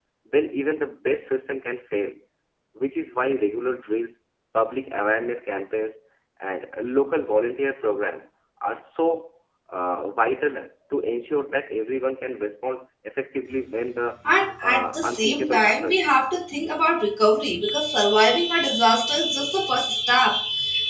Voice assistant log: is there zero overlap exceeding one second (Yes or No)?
No